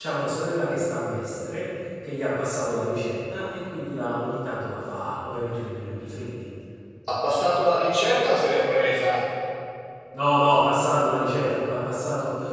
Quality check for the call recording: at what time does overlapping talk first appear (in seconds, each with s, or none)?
none